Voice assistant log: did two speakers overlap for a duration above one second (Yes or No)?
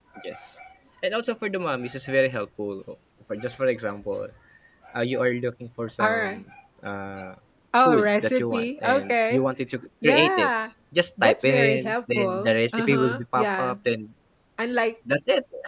Yes